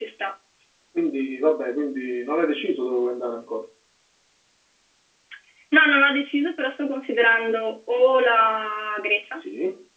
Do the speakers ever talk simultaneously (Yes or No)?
No